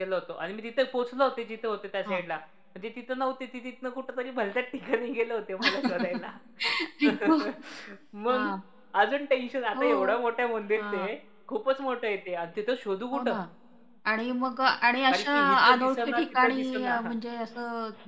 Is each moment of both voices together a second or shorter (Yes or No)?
No